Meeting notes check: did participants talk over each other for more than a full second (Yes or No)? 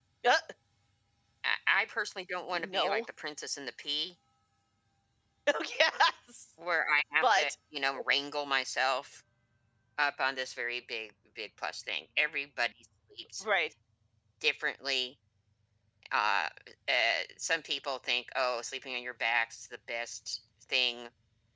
No